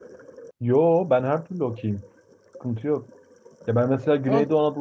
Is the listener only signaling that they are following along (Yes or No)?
Yes